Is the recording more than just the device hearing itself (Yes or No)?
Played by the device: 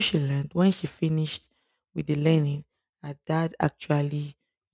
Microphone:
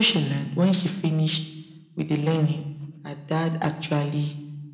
No